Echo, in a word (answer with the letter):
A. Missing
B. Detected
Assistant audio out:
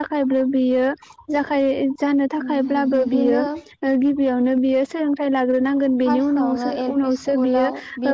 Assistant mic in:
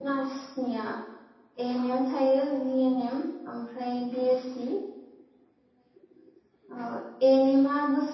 A